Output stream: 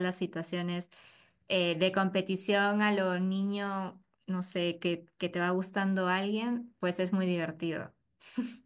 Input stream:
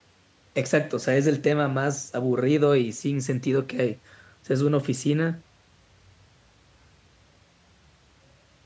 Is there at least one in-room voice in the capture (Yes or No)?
Yes